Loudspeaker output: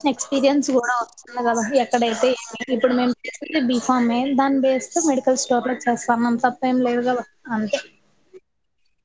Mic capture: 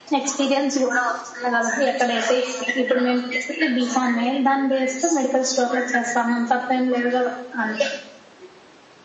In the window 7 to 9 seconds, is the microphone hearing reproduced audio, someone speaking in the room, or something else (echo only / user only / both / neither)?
echo only